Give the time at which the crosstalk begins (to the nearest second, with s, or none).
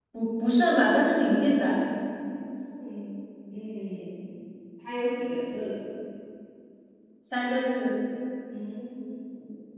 none